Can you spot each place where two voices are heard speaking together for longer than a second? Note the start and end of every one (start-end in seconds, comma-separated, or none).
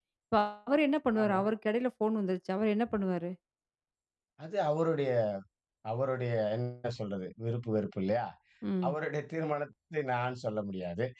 none